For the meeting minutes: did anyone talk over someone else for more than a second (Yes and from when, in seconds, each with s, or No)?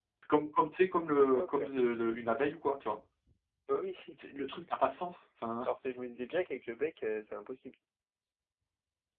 No